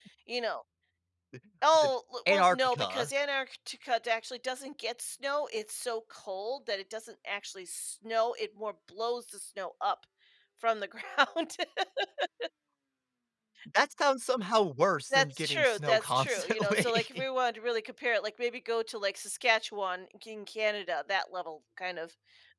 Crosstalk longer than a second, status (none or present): present